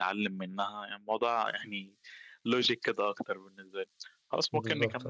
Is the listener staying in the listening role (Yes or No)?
Yes